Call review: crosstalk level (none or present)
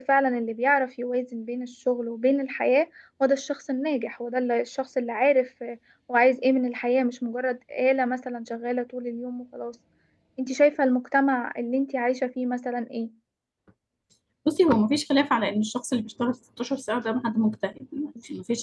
none